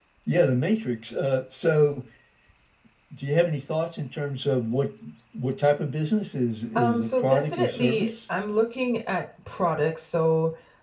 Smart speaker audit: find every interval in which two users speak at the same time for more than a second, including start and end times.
6.8-8.1

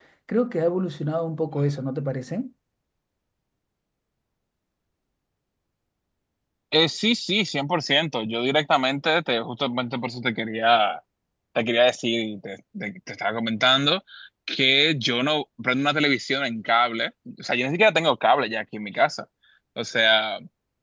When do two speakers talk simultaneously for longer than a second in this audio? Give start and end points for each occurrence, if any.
none

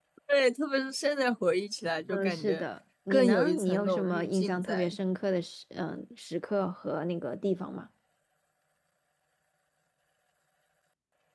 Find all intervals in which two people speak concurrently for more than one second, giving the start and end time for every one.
3.1-5.0

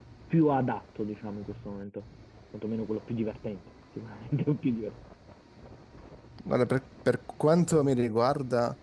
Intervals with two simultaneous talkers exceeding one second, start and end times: none

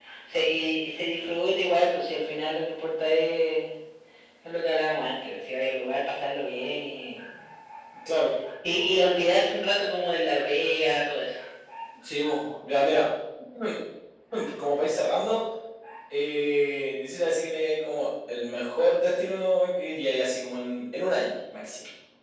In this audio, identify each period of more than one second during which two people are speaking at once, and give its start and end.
none

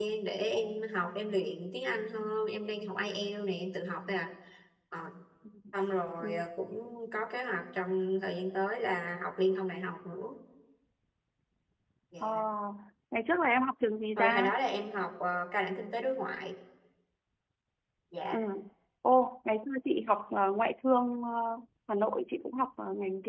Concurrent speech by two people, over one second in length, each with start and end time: none

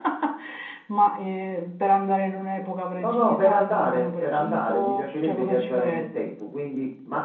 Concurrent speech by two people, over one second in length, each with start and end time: 3.0-6.4

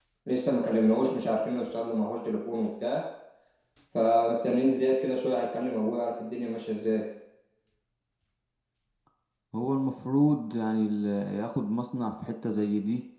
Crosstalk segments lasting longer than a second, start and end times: none

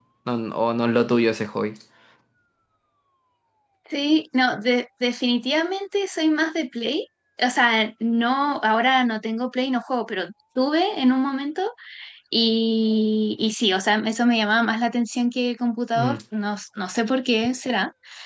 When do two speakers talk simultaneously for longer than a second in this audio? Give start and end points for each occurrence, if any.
none

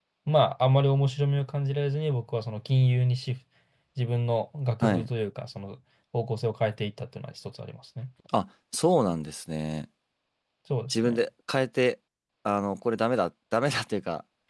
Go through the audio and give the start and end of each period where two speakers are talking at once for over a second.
none

